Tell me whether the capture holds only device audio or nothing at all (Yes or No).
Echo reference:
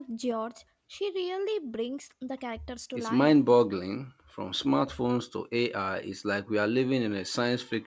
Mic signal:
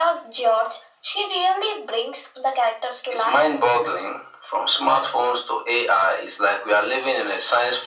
Yes